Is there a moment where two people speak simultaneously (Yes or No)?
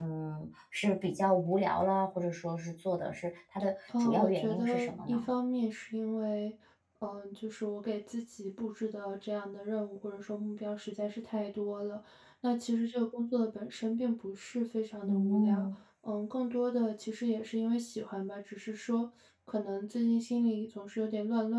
Yes